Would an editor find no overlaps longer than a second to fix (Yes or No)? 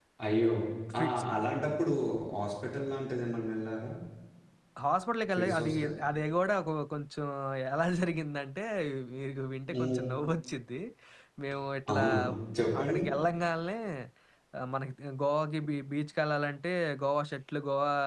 Yes